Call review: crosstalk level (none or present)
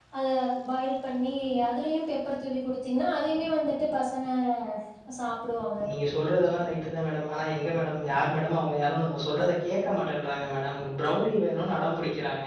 none